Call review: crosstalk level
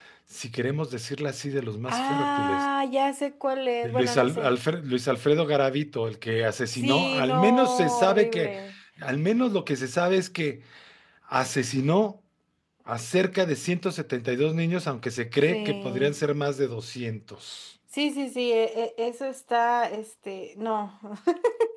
present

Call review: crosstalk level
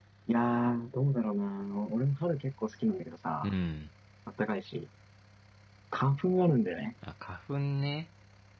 none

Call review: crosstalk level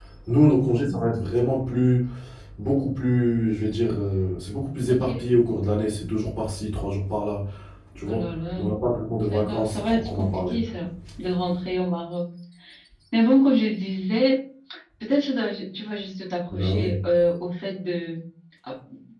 present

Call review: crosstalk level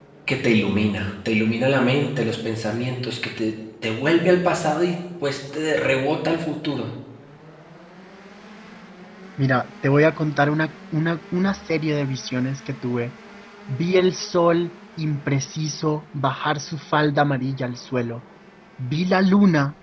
none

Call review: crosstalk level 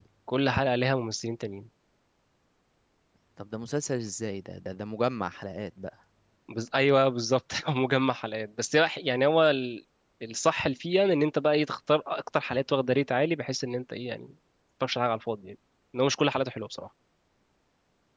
none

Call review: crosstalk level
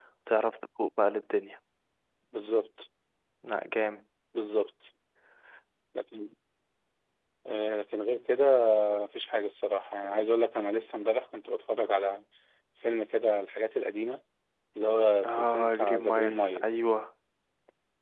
present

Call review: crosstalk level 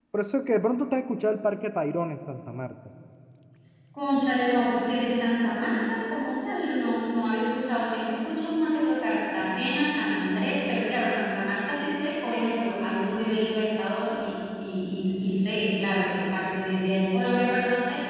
none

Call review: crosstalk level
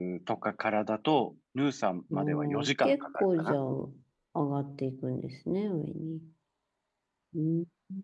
present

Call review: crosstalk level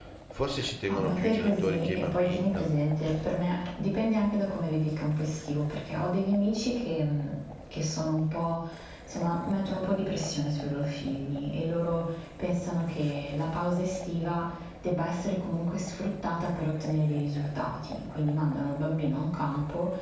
present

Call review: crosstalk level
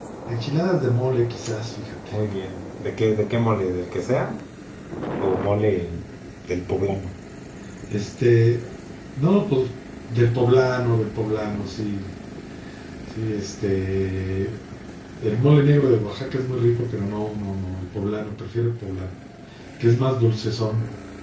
none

